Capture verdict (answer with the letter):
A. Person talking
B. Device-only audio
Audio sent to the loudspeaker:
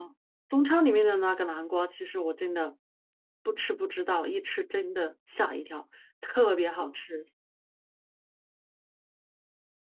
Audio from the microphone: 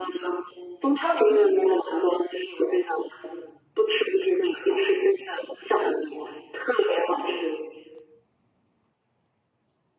B